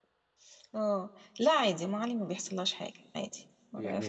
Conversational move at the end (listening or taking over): taking over